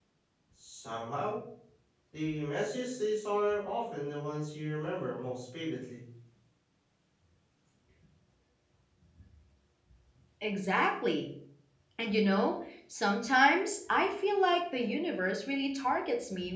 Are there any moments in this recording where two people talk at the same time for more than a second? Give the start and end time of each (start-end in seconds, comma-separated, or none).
none